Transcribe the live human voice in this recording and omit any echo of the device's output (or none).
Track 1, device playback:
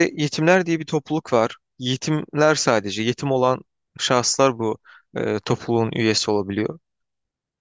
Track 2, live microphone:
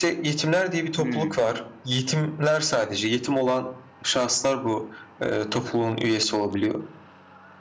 Hmm,